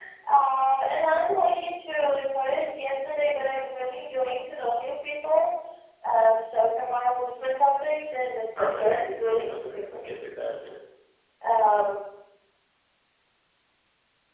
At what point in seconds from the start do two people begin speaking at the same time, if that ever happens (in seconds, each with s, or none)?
8.6 s